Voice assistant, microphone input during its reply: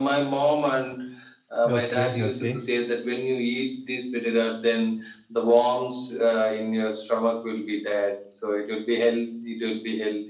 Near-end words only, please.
Okay, okay.

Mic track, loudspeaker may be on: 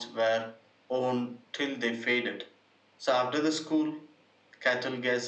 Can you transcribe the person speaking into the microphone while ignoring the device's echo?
none

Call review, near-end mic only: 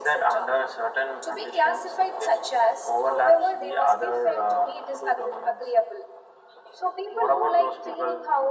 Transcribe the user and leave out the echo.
none

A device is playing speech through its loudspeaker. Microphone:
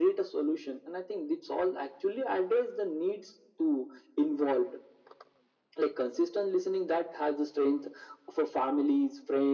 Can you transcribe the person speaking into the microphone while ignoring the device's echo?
none

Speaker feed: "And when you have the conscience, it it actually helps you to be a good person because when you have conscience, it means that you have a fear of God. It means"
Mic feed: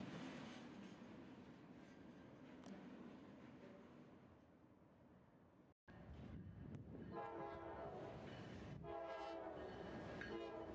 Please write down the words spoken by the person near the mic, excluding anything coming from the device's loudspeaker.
none

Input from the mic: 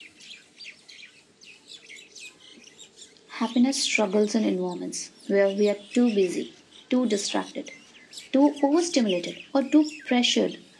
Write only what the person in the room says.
none

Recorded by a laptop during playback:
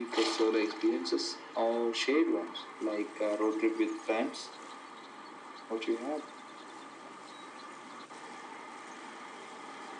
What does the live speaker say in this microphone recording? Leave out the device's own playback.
none

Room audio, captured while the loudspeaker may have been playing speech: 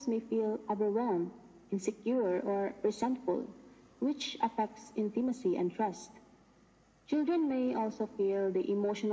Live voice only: none

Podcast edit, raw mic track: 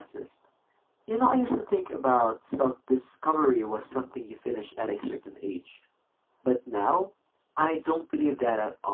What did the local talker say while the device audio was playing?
none

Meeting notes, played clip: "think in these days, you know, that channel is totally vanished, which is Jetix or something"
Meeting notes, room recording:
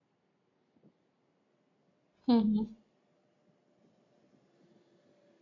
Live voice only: Mhm.

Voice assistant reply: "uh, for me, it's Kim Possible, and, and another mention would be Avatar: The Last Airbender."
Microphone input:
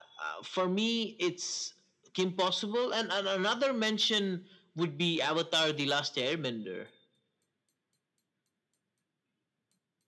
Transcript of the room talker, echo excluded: none

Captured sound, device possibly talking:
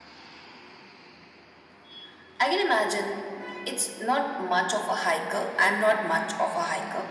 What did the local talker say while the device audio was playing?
none

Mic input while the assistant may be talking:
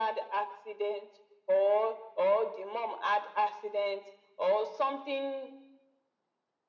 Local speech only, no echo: none

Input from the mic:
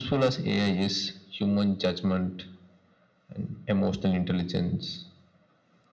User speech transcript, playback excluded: none

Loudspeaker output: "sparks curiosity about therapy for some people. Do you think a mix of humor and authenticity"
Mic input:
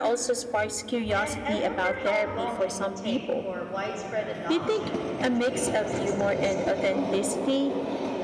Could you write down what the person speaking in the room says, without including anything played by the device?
And I wonder how long it will take for widespread adoption in educational systems globally.

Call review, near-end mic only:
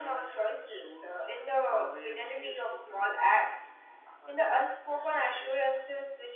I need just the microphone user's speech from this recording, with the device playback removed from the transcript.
none

